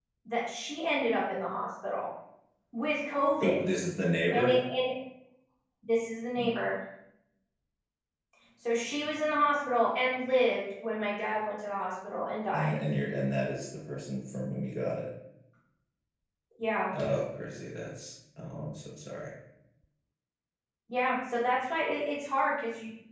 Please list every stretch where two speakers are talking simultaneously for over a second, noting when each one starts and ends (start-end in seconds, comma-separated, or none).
none